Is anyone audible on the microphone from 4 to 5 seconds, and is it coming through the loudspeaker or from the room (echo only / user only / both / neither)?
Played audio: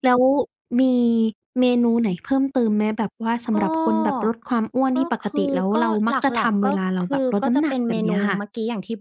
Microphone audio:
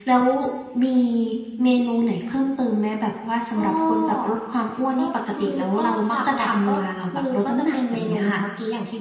echo only